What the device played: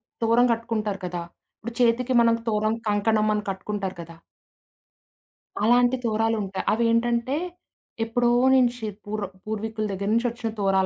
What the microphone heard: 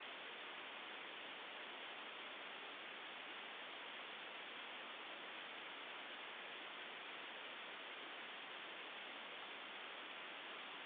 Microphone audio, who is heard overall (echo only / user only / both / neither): neither